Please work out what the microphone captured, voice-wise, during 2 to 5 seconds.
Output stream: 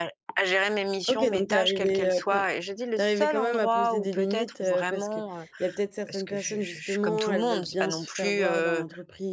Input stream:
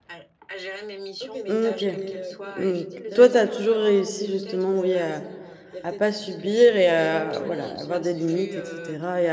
both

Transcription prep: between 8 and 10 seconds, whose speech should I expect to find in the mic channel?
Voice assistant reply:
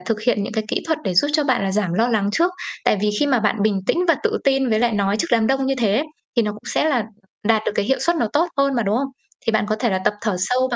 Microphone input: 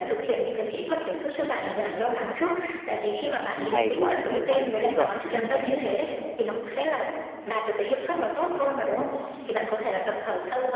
echo only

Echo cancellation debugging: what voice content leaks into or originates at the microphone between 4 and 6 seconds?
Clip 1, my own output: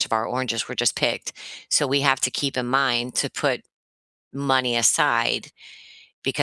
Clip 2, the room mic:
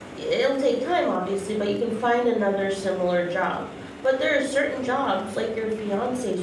user only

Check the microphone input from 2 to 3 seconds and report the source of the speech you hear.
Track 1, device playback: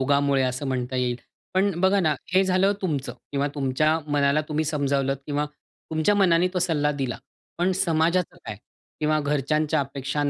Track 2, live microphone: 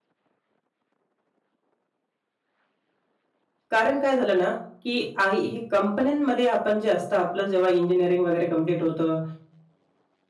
neither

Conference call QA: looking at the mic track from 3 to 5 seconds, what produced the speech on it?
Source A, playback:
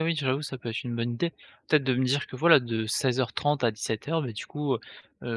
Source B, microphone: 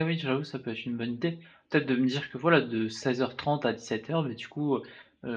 echo only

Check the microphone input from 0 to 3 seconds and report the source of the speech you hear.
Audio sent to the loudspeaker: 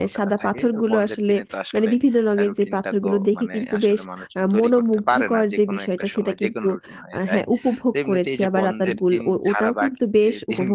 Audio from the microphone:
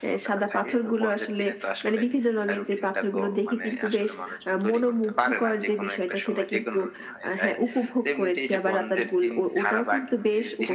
echo only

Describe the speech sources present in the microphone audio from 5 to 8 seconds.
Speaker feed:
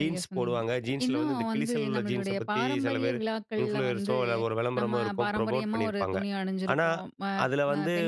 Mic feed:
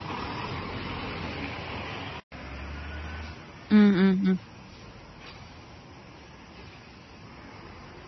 neither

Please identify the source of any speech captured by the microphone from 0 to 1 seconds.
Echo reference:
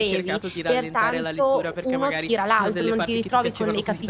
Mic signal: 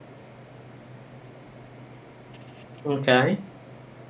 neither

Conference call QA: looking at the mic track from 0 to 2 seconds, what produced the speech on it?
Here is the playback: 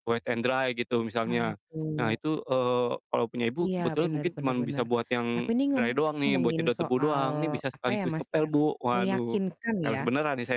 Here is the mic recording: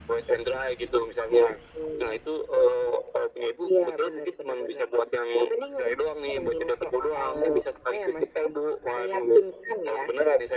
echo only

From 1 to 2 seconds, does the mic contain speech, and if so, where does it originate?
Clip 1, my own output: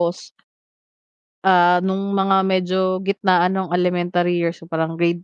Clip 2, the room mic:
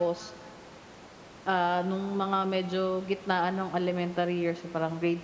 echo only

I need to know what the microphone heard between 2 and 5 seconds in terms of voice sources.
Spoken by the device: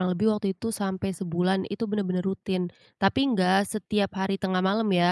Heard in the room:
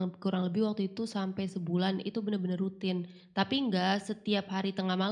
echo only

